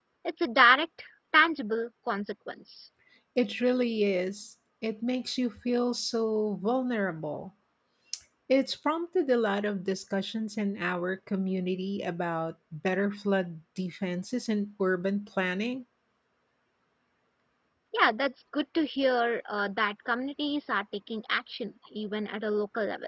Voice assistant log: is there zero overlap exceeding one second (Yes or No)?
Yes